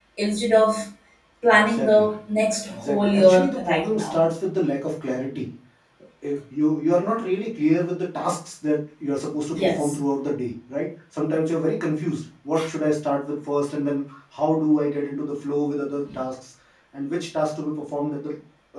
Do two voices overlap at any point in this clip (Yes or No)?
Yes